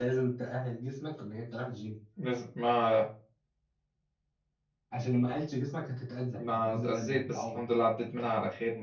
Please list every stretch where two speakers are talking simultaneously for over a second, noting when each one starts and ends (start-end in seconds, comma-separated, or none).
6.4-7.6